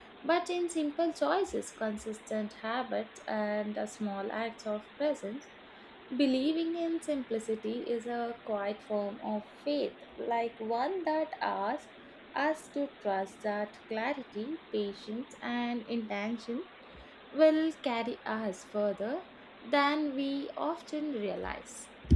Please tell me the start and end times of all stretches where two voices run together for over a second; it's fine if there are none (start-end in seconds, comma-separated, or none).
none